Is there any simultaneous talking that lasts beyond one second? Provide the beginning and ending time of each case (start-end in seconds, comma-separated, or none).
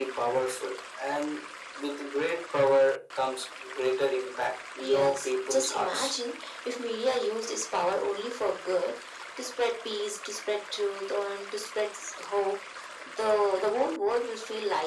4.8-6.1